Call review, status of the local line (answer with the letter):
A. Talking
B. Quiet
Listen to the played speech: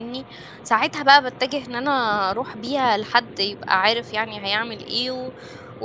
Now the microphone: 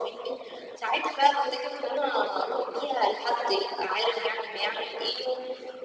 B